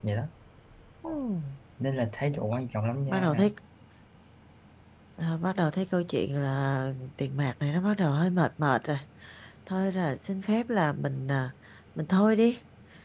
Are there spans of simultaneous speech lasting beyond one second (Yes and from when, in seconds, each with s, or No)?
No